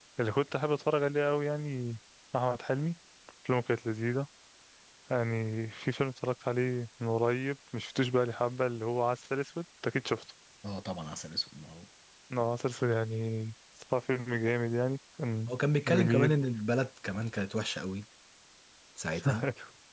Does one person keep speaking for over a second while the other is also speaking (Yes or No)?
No